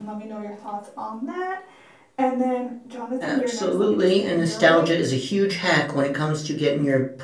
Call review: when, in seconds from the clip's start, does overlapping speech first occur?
3.2 s

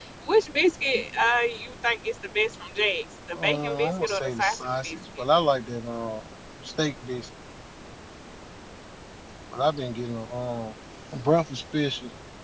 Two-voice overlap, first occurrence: 3.3 s

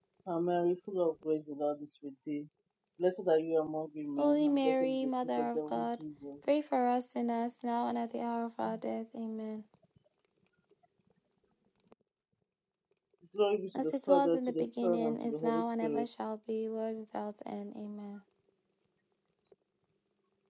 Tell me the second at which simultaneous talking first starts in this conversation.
4.2 s

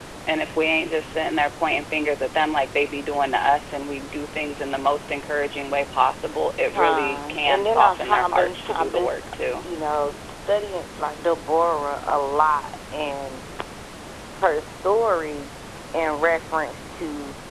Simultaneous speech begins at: 6.7 s

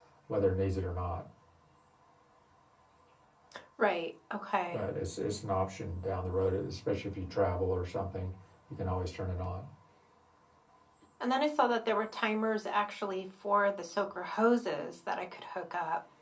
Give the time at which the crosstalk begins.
none

